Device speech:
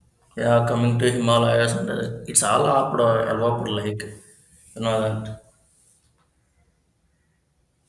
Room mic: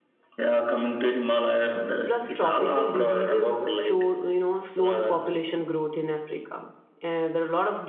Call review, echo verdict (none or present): present